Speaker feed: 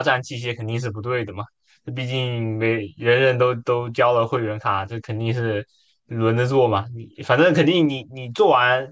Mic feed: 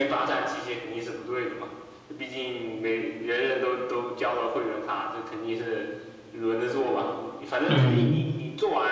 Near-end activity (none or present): present